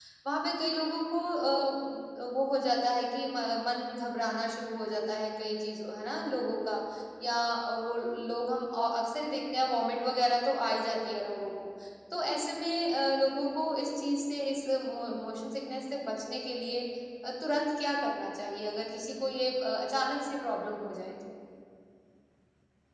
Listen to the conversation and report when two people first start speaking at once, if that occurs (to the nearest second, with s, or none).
none